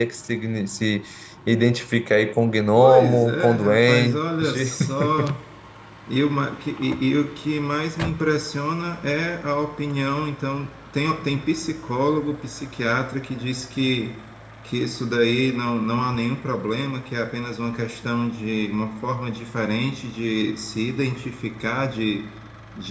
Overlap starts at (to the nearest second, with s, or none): 3 s